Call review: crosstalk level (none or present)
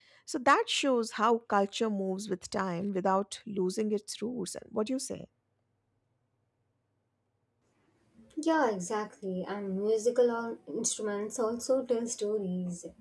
none